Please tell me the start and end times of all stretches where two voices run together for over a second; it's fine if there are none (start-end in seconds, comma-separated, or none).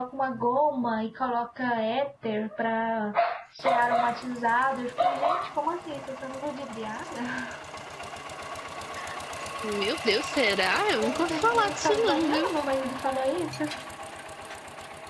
11.0-12.5